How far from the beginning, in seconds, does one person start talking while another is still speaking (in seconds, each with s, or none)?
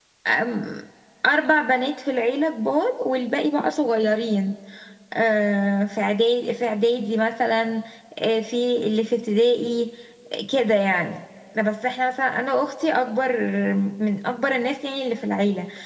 none